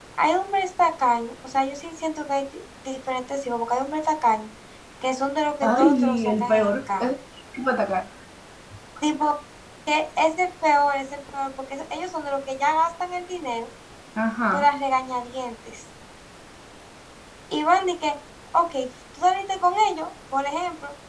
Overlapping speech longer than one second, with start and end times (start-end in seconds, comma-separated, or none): 5.6-7.1